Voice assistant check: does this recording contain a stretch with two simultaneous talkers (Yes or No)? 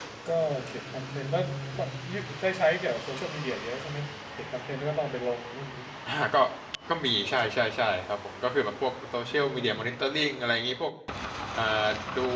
No